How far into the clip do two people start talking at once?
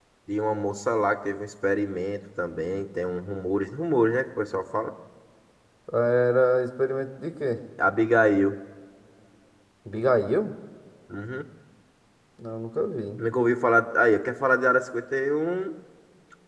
none

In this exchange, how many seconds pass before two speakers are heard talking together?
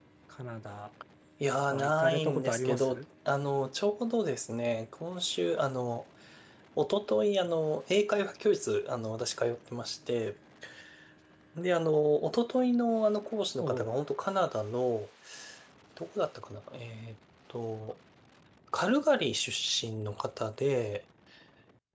1.7 s

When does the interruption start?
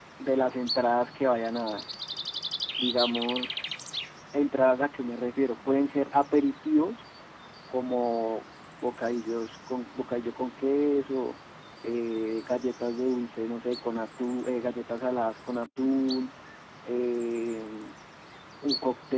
none

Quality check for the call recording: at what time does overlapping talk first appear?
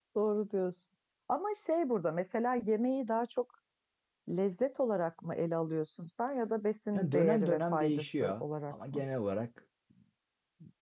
6.9 s

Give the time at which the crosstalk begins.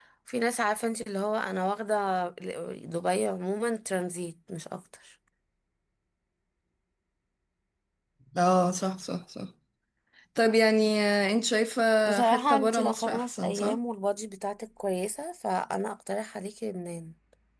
12.2 s

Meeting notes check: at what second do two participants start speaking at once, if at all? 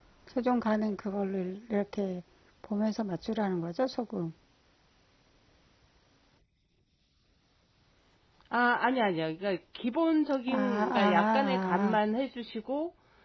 10.5 s

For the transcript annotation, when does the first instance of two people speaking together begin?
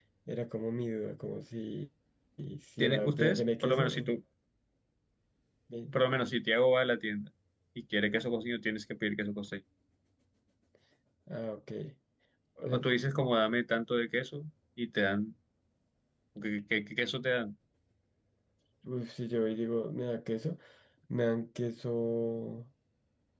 2.8 s

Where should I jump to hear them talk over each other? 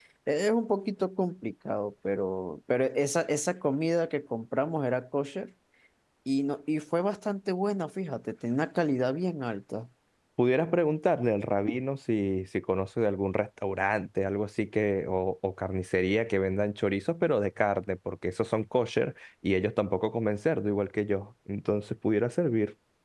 none

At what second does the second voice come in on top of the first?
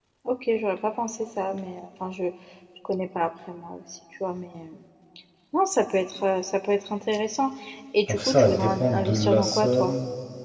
8.1 s

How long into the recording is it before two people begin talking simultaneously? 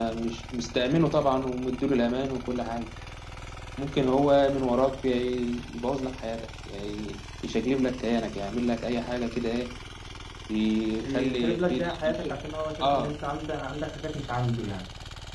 11.0 s

